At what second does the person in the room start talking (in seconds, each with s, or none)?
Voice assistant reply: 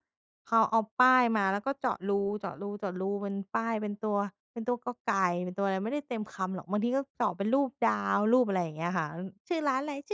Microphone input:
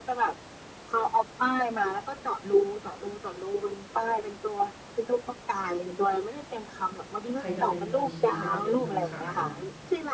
7.3 s